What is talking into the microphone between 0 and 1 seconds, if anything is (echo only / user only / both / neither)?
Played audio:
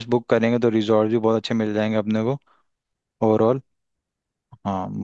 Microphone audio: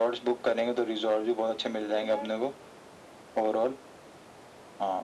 echo only